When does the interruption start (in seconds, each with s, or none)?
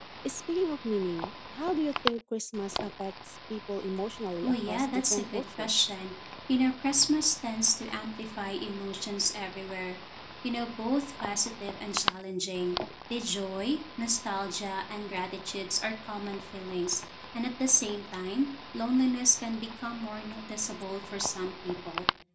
4.4 s